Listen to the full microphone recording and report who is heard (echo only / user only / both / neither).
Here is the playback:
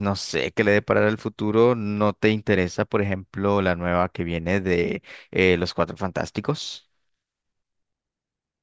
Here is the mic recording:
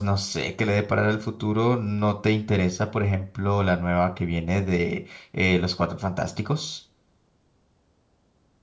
echo only